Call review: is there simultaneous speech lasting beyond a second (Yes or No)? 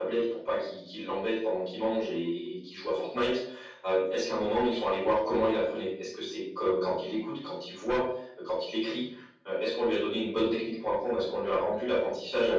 No